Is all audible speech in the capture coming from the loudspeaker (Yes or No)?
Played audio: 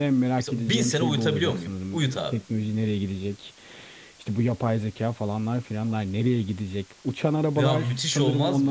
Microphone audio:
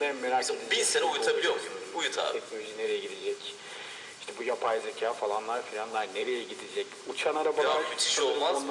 Yes